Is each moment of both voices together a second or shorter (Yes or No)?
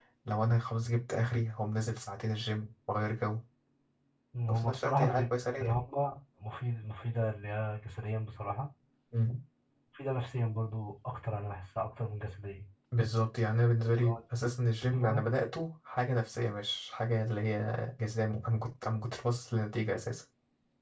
No